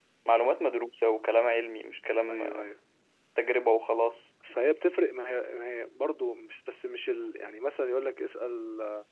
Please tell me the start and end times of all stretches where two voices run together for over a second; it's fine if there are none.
none

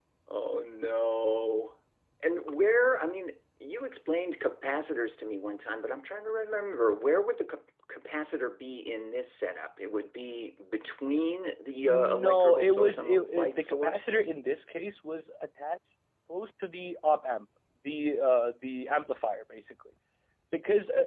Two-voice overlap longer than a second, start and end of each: 11.8-14.1

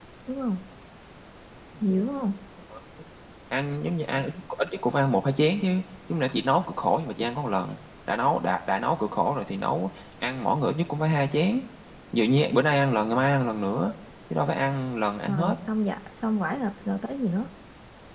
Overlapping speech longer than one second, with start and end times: none

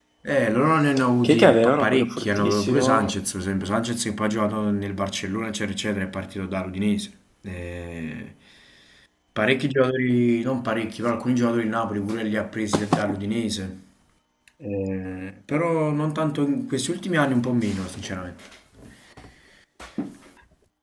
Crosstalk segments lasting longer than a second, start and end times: 1.2-3.1

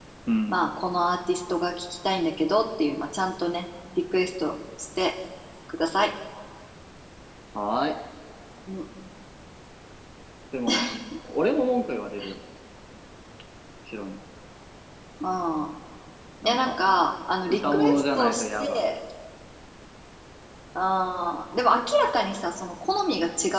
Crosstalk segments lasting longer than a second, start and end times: 17.5-18.8

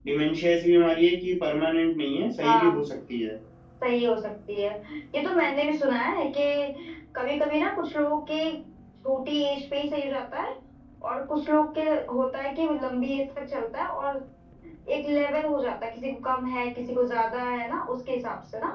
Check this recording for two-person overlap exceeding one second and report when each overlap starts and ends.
none

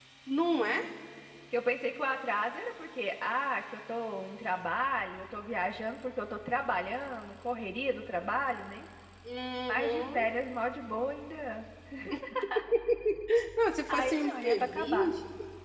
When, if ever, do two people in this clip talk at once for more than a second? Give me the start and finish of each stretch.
13.9-15.1

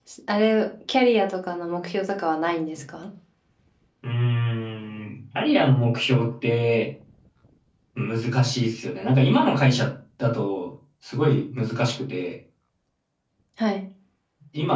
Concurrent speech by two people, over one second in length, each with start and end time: none

